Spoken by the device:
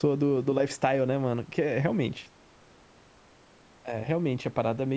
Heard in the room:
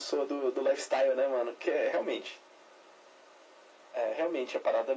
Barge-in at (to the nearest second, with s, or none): none